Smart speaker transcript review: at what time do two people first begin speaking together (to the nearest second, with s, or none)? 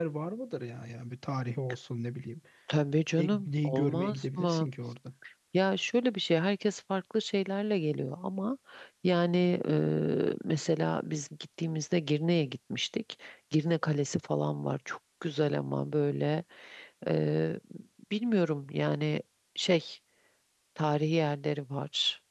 3 s